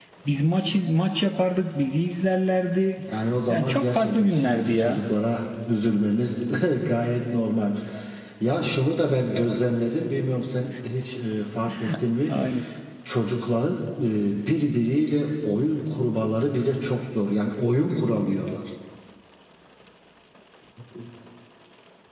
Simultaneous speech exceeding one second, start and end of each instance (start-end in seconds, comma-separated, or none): 3.5-5.0